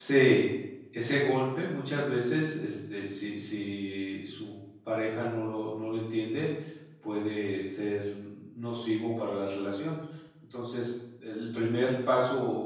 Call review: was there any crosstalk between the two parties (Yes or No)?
No